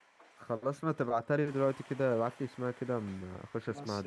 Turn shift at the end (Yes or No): Yes